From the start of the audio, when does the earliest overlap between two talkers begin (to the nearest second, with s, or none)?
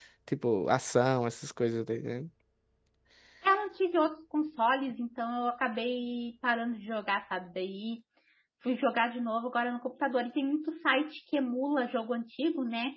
none